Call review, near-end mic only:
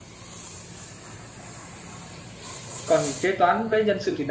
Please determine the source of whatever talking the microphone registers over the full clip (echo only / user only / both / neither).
user only